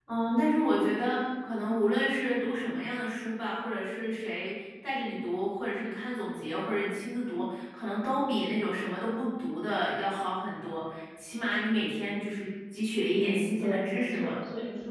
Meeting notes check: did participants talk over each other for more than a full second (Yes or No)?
Yes